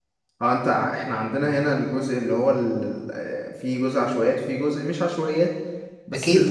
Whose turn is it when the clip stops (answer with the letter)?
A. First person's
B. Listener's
B